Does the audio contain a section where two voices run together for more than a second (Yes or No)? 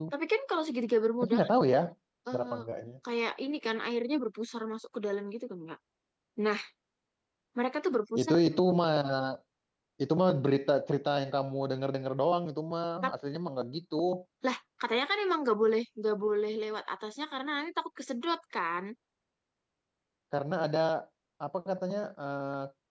No